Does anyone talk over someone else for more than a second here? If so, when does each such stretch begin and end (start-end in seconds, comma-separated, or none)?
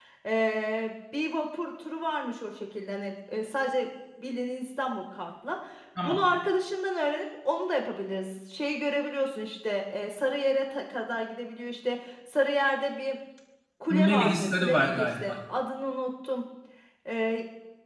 13.9-15.3